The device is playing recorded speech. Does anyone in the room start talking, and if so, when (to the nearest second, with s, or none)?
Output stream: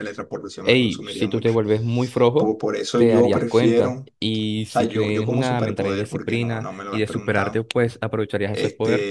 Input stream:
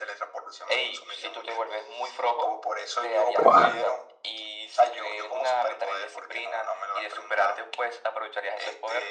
3 s